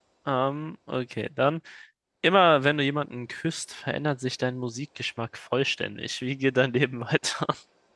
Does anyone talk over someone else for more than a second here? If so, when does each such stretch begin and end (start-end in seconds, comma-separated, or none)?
none